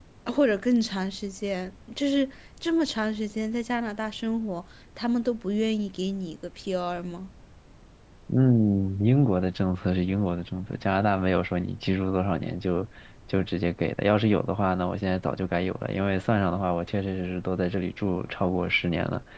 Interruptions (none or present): none